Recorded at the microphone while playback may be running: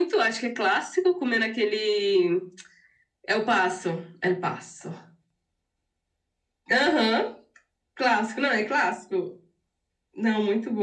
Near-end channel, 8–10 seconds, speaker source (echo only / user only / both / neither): echo only